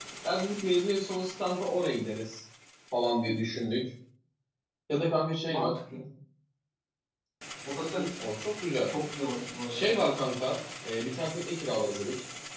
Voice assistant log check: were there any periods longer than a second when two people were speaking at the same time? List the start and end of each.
none

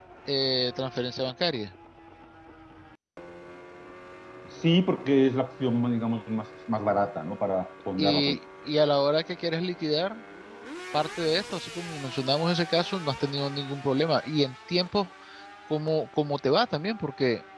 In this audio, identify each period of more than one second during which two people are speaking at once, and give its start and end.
none

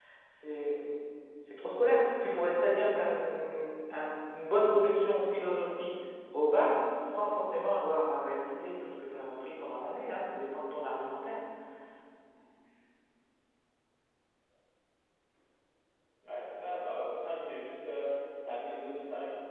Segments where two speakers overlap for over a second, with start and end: none

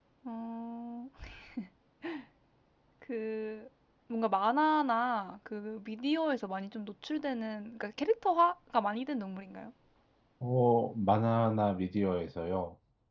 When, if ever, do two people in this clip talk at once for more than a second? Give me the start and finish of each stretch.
none

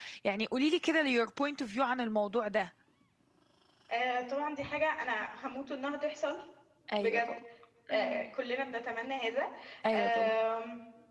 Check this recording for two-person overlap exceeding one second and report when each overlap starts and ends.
none

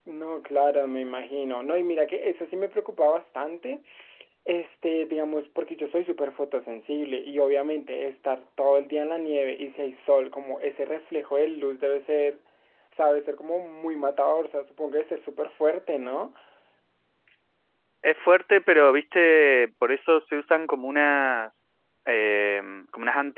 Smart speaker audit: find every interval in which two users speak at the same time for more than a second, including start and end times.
none

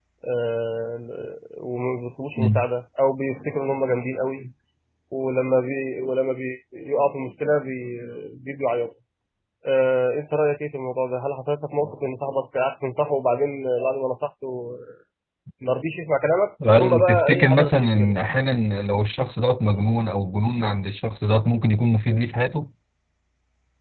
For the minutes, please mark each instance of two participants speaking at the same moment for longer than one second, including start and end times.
16.8-18.1

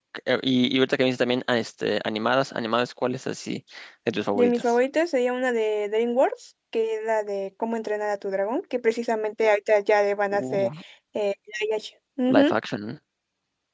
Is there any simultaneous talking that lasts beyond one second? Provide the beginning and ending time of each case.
none

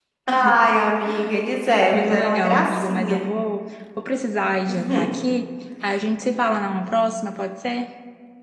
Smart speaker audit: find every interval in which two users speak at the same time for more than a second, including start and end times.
1.9-3.2

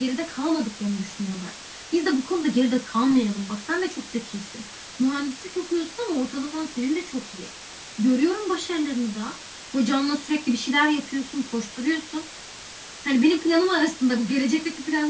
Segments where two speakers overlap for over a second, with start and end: none

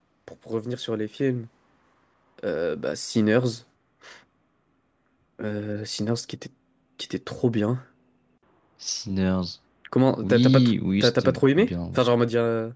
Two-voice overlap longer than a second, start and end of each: 10.2-11.7

